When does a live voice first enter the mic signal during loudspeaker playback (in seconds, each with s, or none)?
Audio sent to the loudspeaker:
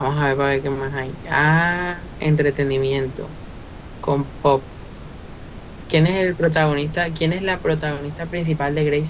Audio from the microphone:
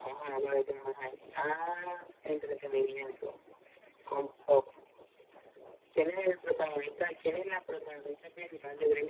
none